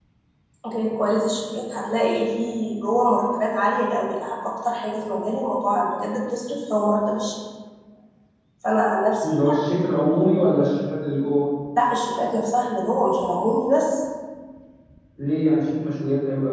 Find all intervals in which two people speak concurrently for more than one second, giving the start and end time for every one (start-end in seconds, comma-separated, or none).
none